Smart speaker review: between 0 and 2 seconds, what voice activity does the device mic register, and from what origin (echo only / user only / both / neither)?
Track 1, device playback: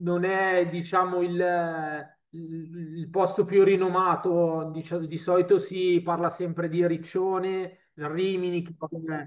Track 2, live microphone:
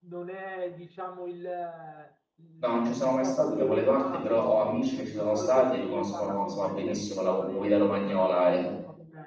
echo only